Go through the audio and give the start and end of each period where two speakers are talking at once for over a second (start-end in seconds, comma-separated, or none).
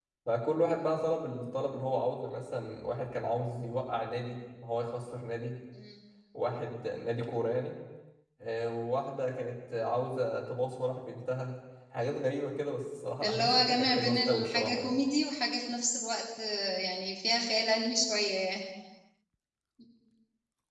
13.2-15.0